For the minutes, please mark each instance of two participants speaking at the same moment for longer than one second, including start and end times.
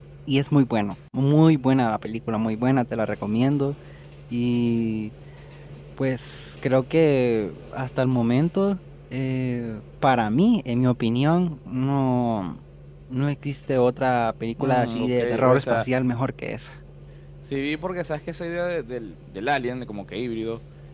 14.6-15.8

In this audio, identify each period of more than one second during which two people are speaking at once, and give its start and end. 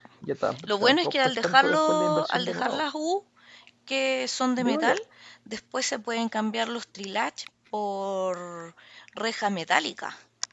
0.7-2.8

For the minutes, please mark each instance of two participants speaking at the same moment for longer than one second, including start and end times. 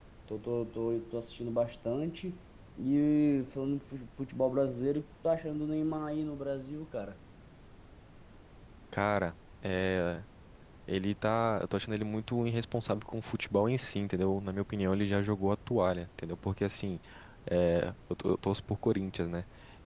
none

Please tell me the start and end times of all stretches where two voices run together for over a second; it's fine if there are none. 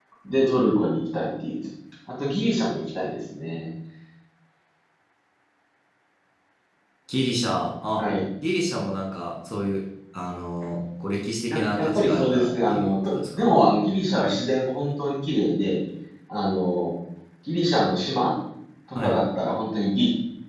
11.5-13.5

